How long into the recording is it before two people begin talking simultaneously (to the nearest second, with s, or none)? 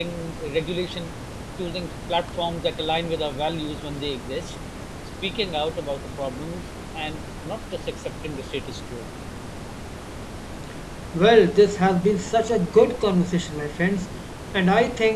none